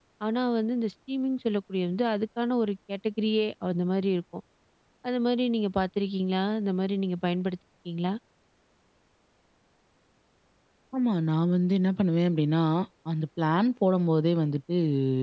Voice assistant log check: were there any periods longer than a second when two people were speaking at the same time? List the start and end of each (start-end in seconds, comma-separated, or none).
none